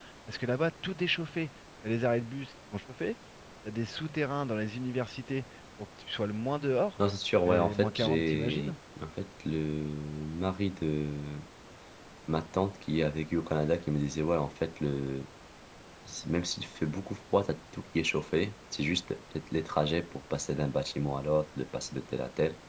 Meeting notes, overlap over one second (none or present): present